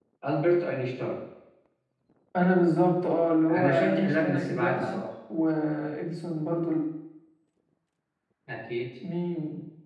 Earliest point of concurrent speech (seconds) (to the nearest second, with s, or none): 3 s